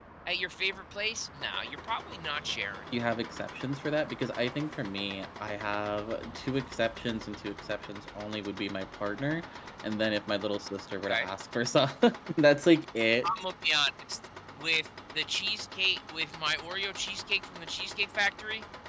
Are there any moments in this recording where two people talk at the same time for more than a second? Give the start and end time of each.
none

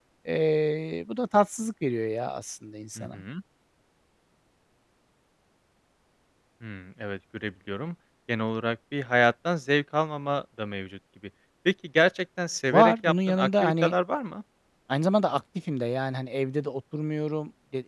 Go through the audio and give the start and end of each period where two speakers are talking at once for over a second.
12.7-13.9

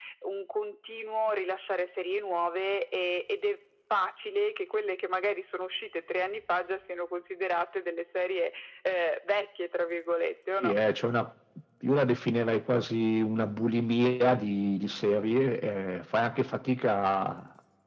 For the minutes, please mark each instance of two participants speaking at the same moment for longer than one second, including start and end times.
none

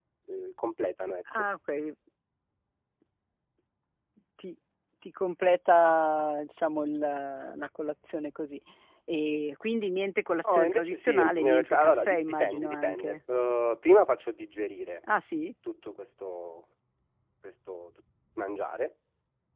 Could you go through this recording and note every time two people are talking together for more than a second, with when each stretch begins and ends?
10.5-13.2

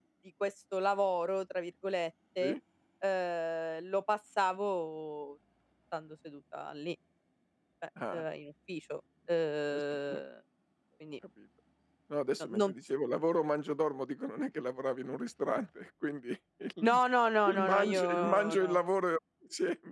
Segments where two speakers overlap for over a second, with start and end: 17.4-18.8

